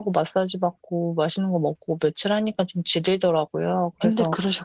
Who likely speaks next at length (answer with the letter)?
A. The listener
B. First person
B